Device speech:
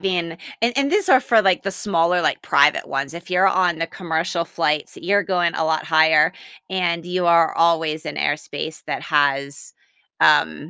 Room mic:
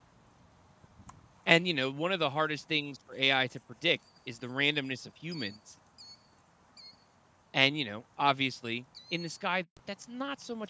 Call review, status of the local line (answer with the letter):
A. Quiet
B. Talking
B